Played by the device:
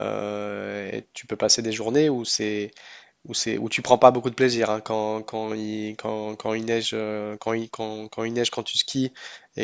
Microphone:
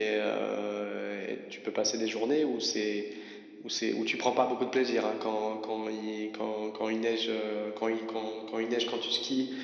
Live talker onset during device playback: none

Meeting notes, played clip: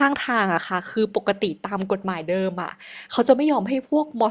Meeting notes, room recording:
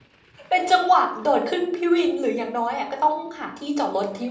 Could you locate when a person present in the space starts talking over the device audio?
0 s

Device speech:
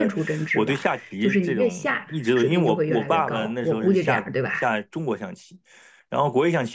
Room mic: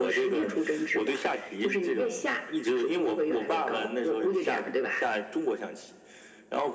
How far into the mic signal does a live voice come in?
none

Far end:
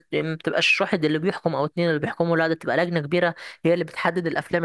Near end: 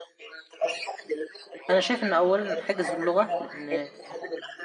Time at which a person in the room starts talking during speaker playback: 2 s

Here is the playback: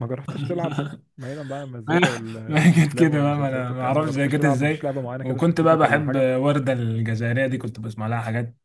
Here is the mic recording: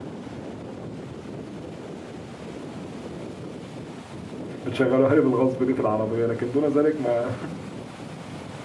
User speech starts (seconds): 5 s

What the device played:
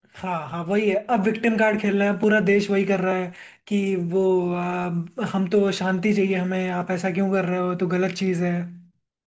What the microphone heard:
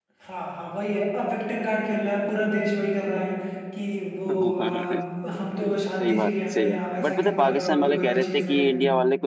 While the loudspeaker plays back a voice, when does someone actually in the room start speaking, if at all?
4 s

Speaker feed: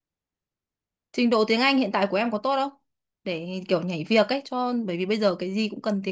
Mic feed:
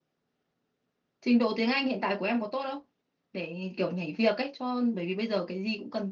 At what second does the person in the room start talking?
none

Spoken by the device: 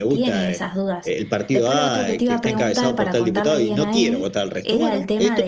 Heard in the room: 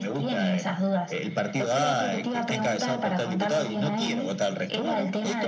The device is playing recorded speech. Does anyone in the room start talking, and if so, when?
none

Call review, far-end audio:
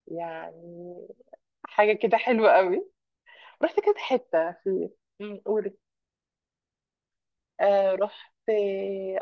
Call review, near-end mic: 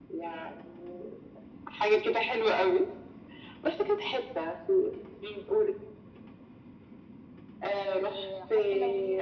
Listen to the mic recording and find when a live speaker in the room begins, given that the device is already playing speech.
8 s

